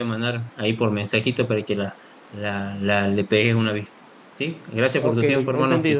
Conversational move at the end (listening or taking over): taking over